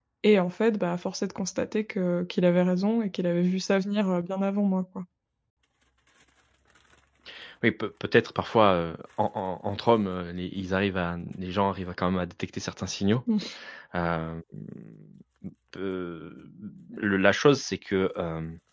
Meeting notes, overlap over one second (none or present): none